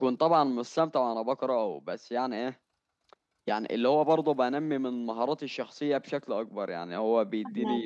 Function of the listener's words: listening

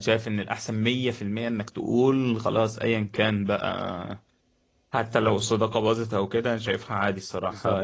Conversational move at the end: listening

